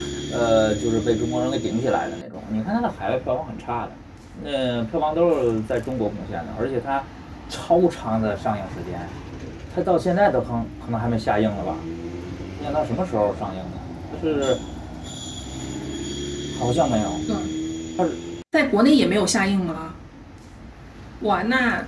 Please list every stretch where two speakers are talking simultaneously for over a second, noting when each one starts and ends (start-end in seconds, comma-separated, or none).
none